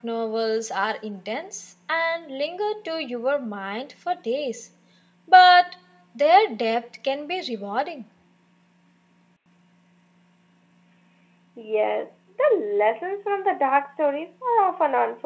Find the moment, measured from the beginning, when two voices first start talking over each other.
none

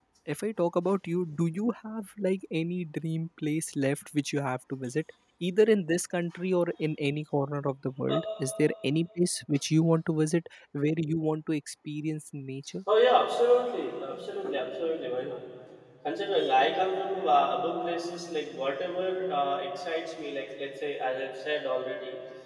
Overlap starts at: none

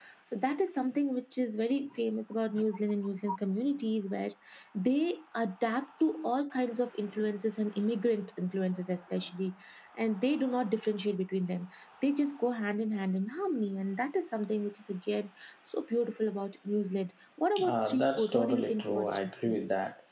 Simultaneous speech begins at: 17.6 s

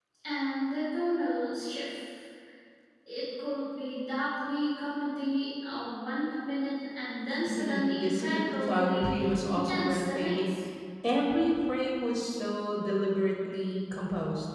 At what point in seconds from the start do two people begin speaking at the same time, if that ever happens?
7.5 s

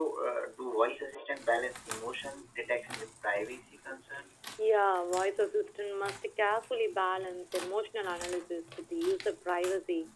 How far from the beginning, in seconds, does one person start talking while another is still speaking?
none

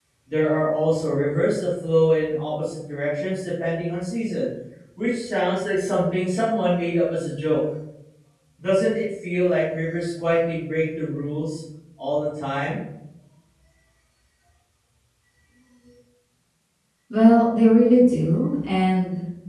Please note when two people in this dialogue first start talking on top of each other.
none

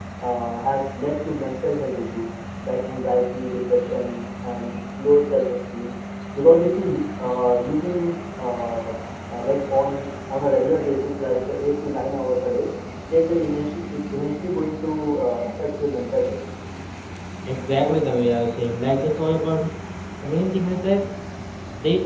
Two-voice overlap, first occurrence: none

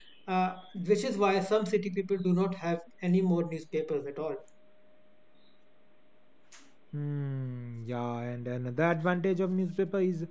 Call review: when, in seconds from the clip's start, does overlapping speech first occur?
none

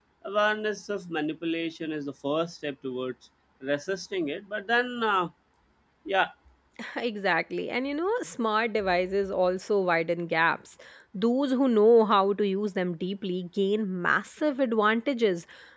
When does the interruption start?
none

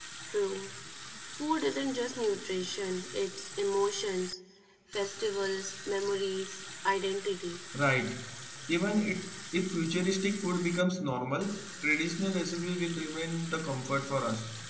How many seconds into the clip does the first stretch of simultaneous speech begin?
none

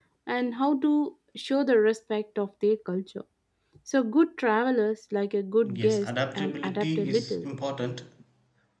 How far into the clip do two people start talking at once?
5.6 s

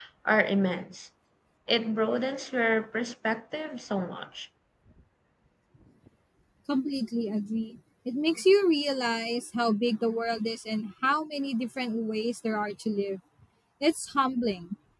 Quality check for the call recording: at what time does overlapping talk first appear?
none

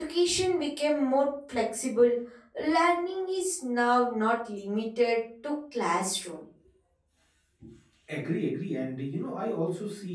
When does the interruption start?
none

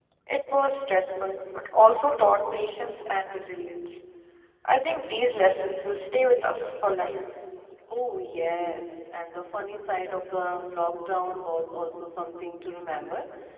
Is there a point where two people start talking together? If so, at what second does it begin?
none

